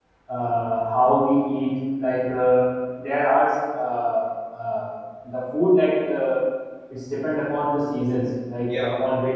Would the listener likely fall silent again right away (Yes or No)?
Yes